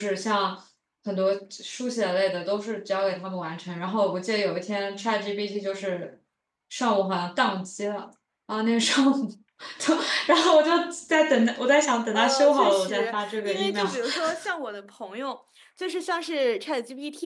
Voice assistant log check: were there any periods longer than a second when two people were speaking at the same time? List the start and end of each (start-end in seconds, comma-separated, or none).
12.1-14.3